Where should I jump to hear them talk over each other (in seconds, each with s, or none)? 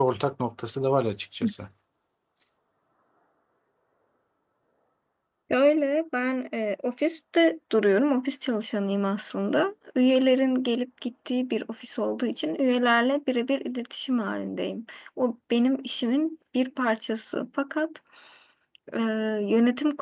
none